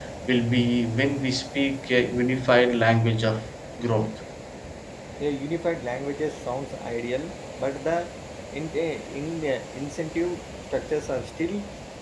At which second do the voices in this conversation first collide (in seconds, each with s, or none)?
none